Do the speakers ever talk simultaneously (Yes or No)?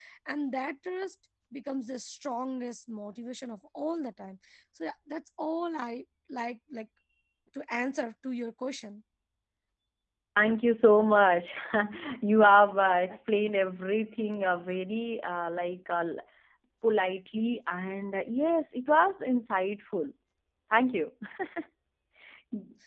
No